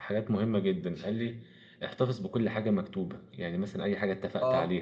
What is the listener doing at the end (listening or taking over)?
listening